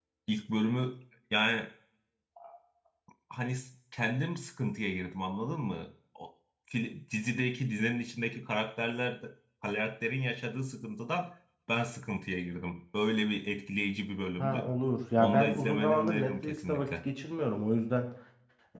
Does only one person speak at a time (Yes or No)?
No